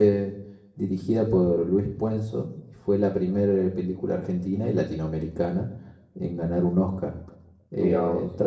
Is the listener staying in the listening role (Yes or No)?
Yes